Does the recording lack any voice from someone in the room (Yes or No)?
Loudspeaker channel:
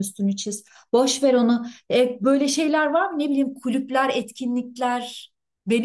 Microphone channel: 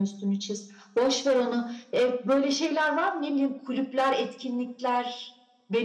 Yes